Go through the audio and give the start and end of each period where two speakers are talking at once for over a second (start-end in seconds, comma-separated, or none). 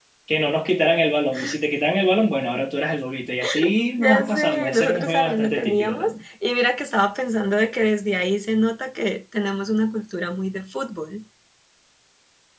4.0-6.1